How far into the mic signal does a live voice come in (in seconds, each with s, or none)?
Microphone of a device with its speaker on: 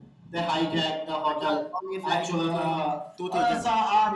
1.3 s